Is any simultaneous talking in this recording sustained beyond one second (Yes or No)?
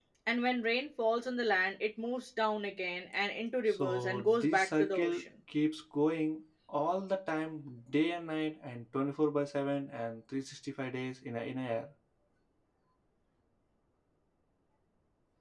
Yes